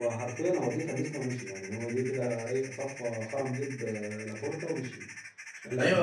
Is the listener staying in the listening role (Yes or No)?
No